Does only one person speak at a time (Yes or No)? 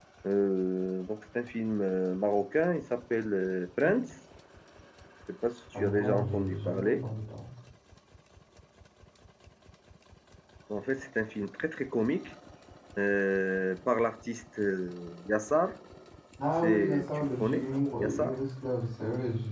No